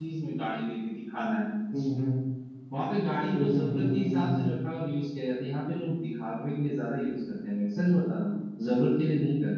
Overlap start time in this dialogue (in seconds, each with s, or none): 3.3 s